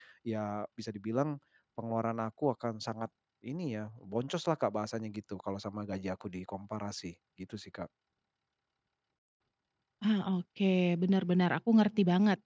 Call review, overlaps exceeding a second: none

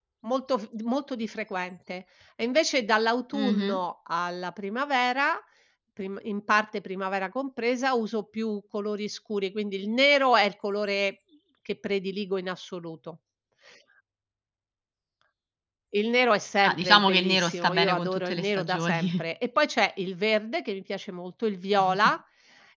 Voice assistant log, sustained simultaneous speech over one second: present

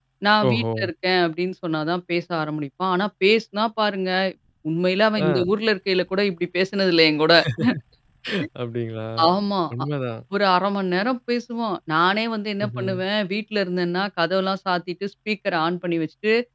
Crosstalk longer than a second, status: none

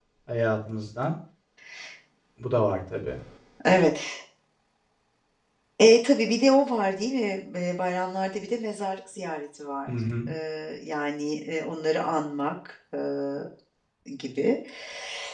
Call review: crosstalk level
none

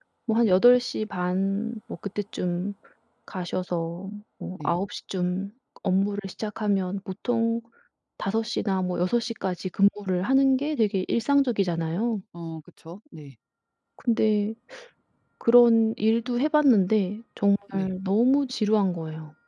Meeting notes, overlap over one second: none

